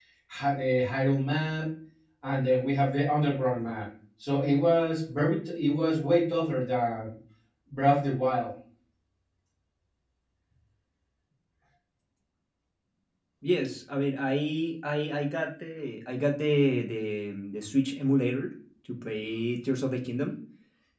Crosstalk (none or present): none